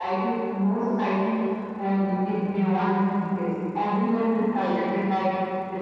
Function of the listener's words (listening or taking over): listening